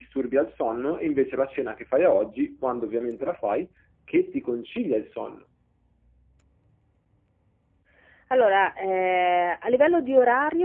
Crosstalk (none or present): none